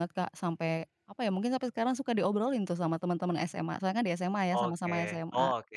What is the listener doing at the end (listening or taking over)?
taking over